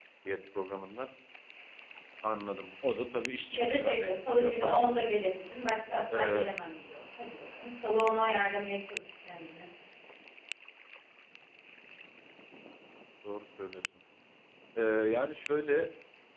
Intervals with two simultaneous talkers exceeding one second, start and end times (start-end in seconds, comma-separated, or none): 3.5-4.8